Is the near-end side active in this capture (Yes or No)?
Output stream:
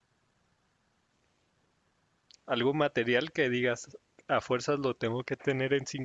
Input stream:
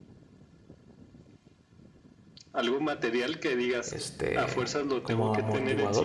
Yes